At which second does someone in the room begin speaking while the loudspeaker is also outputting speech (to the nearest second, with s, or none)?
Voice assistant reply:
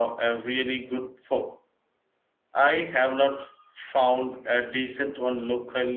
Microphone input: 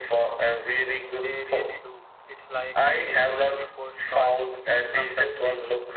1 s